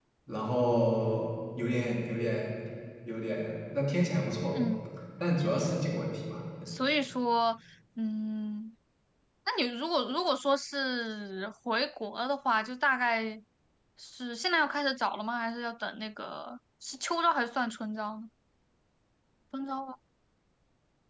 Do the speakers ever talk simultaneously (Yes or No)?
No